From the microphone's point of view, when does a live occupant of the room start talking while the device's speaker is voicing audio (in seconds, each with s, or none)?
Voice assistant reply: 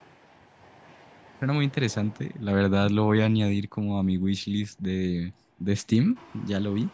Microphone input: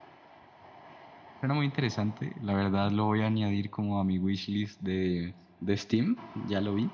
none